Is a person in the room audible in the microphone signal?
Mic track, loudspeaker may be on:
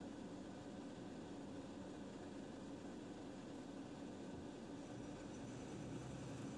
No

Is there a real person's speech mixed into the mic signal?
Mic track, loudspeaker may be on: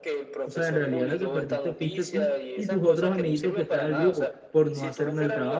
Yes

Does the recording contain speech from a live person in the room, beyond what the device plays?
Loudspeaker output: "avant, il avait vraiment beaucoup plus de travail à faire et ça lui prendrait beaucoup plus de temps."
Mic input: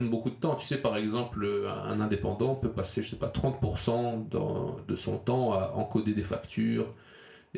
Yes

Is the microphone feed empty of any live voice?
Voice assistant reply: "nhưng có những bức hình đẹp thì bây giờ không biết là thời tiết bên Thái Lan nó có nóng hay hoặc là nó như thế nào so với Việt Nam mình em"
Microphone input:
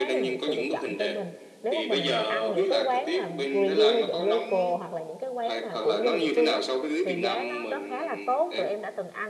No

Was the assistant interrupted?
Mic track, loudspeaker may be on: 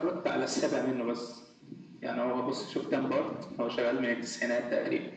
No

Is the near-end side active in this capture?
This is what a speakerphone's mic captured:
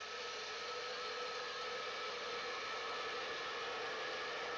No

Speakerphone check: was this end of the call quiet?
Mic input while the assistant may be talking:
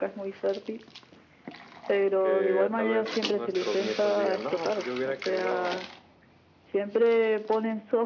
No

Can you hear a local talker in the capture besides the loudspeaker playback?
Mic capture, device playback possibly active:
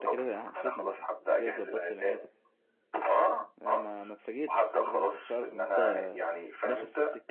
Yes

